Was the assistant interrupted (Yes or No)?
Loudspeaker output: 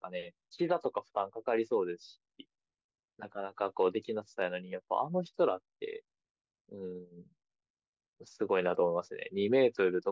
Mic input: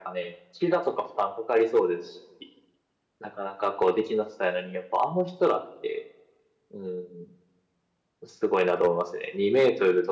No